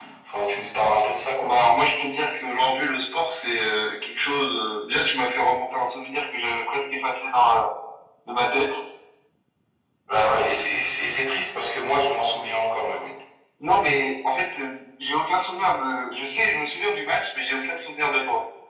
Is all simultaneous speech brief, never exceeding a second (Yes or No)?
Yes